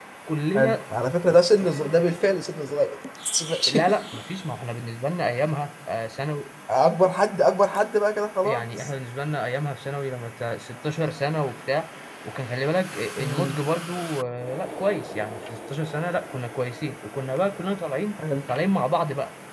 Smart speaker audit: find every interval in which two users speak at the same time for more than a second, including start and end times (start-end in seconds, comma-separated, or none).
none